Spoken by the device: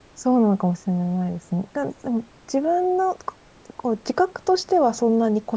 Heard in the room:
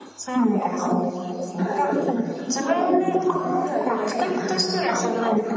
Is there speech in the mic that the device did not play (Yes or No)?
Yes